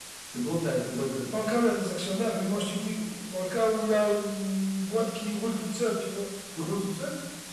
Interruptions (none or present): none